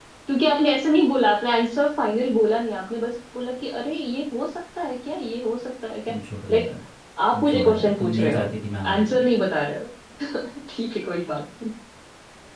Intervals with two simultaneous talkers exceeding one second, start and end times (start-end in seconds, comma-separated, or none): 7.3-8.6